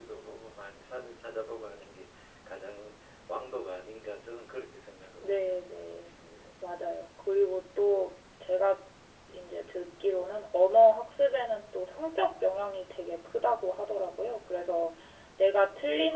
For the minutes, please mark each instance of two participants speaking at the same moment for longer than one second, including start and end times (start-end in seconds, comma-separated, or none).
none